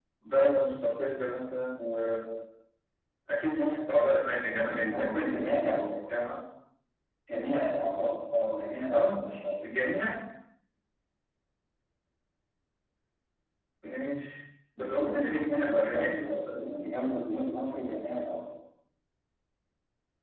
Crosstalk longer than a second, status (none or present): present